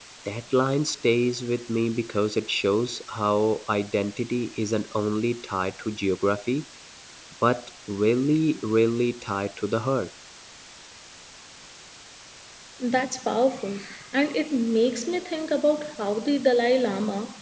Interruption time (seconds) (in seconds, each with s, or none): none